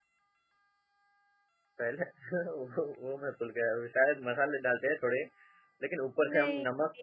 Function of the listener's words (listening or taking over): listening